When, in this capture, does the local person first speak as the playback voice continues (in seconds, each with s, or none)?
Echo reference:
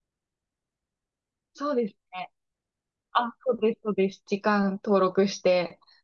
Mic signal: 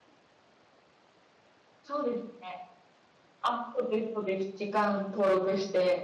none